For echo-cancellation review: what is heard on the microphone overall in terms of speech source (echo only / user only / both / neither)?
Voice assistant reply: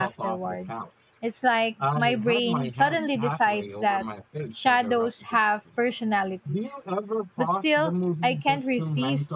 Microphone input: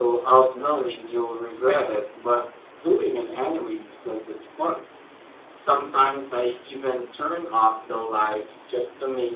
user only